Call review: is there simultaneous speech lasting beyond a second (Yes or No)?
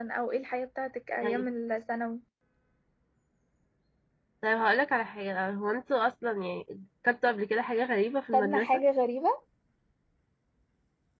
No